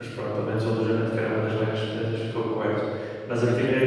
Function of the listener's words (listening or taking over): listening